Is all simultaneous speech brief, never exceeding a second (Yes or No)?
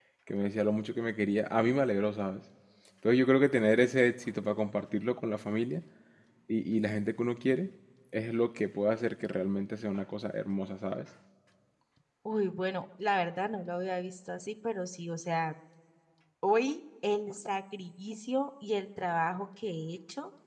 Yes